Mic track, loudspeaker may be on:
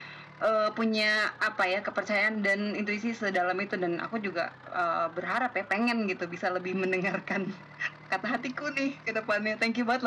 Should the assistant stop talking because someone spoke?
No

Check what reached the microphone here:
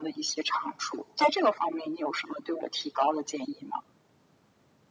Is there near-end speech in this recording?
No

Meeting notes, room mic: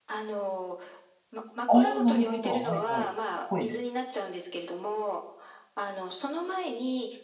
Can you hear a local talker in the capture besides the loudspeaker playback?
Yes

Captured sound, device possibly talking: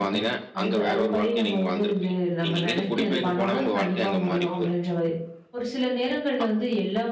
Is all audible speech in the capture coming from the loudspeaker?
No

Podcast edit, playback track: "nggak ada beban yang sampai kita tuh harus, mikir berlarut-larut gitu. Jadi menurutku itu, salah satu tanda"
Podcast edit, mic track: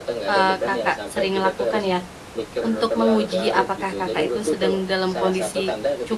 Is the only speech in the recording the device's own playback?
No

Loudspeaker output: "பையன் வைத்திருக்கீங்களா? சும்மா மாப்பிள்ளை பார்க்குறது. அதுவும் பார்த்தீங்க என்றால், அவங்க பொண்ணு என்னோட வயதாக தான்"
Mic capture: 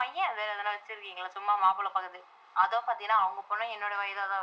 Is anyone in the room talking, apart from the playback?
No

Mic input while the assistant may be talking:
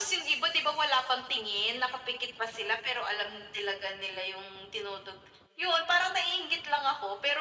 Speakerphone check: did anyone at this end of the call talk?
No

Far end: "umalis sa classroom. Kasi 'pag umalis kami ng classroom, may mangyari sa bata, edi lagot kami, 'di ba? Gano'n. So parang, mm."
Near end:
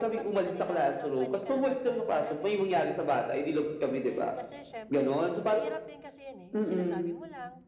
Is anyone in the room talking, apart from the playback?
Yes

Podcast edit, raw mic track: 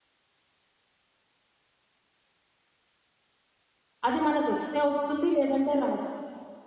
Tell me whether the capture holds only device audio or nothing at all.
No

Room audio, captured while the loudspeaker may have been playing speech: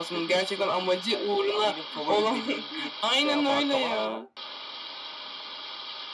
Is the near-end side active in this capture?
No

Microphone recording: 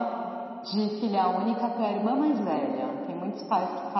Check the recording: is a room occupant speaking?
No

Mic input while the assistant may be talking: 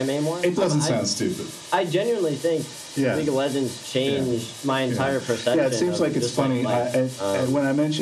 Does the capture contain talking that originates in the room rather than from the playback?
No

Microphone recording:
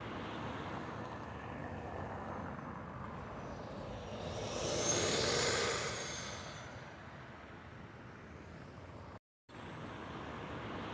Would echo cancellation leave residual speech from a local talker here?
No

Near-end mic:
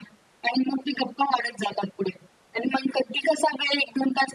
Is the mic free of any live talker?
Yes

